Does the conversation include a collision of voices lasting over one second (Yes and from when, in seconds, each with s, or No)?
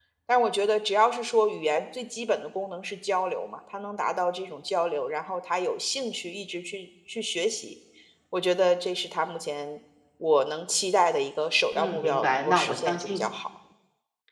Yes, from 11.7 s